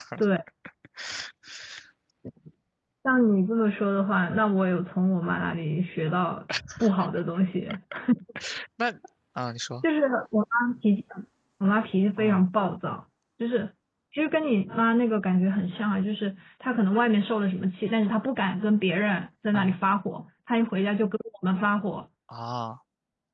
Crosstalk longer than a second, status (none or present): none